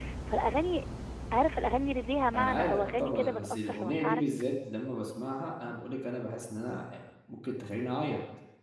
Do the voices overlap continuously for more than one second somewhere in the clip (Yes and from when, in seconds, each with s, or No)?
Yes, from 2.3 s